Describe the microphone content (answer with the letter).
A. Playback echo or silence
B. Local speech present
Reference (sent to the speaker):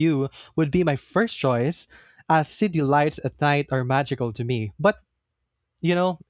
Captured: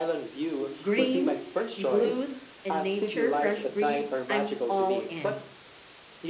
B